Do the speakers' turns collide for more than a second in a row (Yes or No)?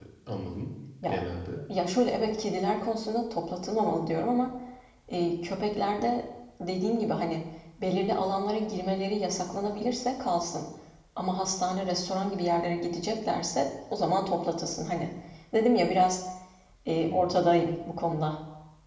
No